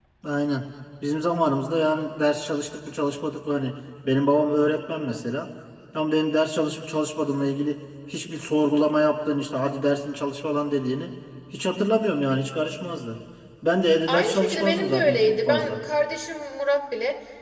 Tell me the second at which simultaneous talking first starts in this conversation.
14.1 s

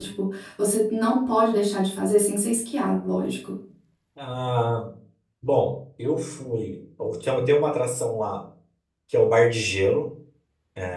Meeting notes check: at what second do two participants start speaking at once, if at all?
none

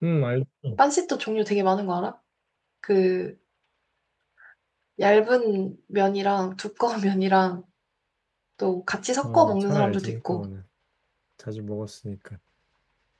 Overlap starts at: 9.2 s

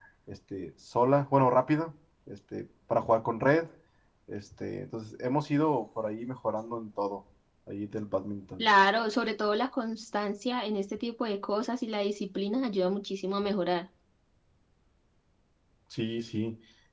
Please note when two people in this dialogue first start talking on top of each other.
none

